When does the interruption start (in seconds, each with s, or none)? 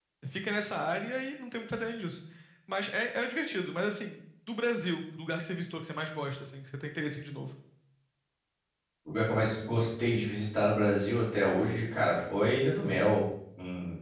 none